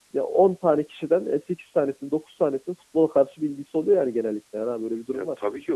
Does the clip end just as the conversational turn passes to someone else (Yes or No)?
Yes